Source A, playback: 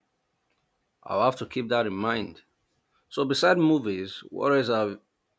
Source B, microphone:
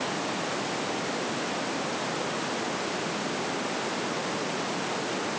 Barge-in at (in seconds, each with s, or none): none